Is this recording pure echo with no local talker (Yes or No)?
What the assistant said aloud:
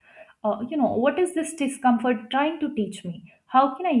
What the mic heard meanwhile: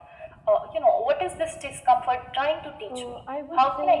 No